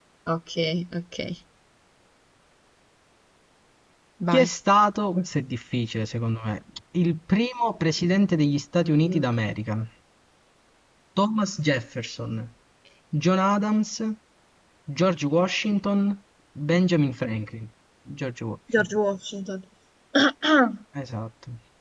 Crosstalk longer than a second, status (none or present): none